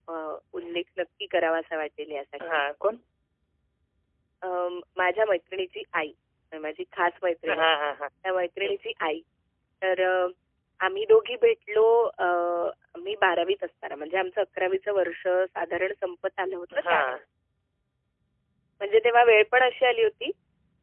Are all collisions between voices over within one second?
Yes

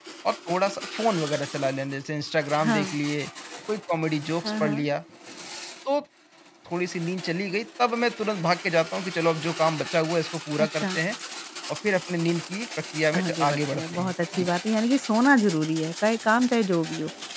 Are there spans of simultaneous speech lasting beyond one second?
Yes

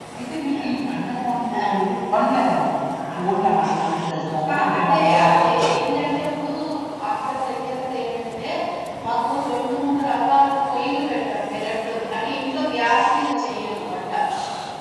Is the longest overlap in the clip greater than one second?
Yes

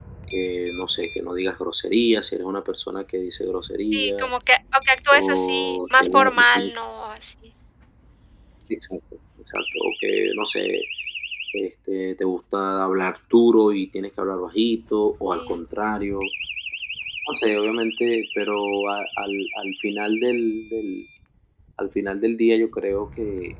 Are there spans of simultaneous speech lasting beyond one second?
Yes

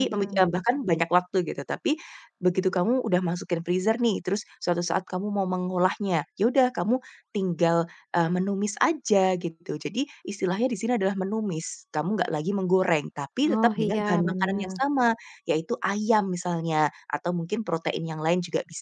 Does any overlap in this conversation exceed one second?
Yes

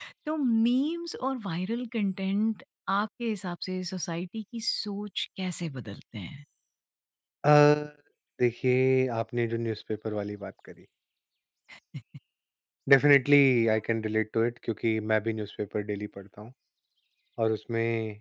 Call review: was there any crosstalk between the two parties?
No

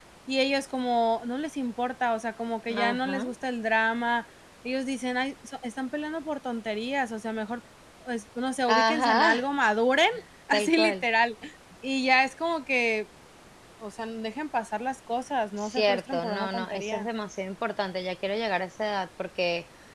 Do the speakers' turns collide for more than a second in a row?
Yes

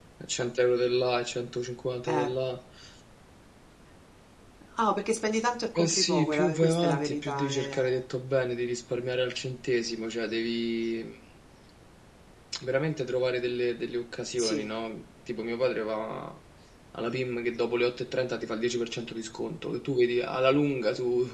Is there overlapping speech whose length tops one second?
Yes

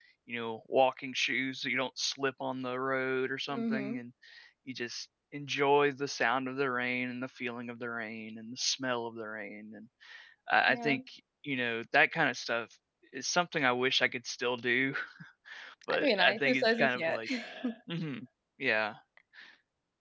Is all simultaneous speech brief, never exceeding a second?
No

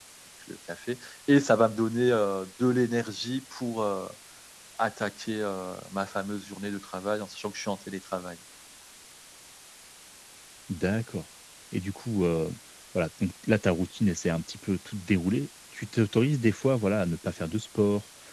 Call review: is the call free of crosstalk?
Yes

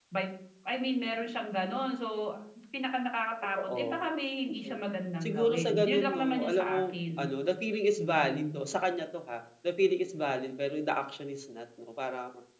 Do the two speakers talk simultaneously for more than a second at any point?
Yes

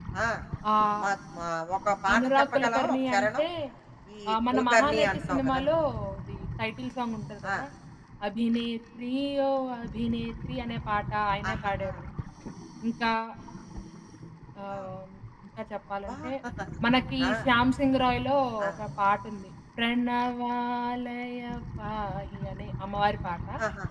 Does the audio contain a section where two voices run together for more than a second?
Yes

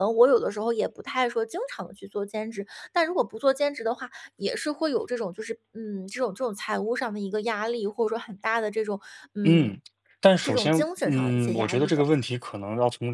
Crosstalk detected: Yes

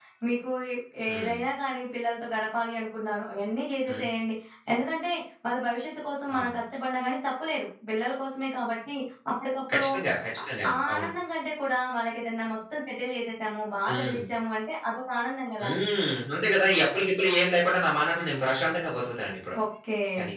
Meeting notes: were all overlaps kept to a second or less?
Yes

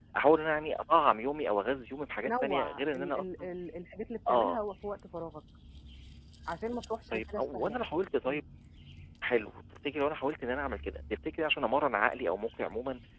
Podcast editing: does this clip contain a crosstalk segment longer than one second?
Yes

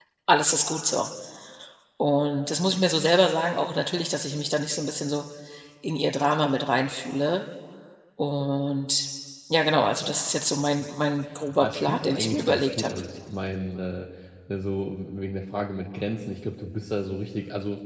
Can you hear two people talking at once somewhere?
Yes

